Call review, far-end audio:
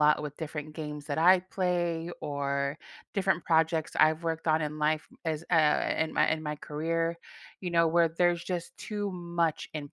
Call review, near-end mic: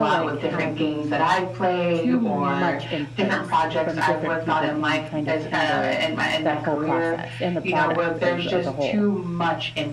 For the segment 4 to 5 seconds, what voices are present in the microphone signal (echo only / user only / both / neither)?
both